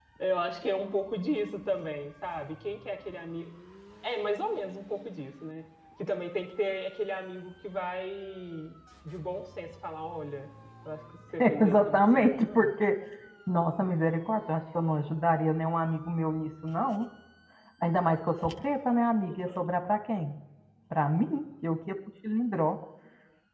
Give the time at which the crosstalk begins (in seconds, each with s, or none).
11.4 s